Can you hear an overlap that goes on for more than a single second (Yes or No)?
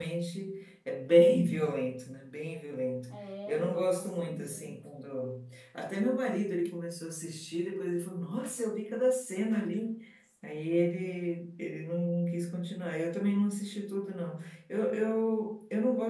Yes